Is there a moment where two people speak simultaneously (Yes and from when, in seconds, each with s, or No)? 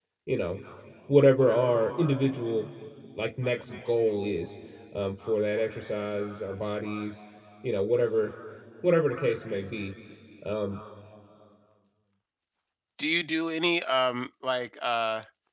No